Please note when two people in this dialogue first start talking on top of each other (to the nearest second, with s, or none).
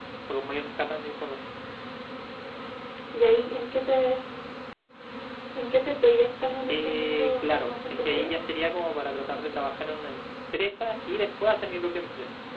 7 s